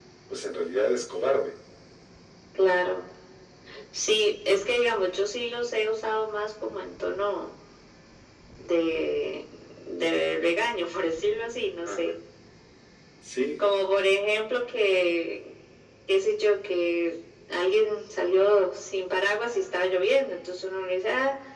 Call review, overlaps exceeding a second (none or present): none